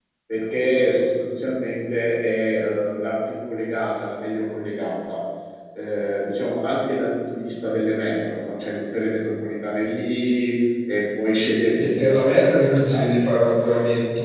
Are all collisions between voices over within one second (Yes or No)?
No